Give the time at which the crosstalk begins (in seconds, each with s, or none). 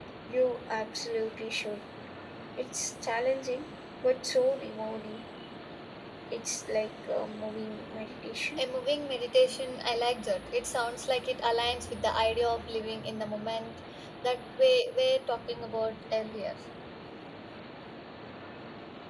none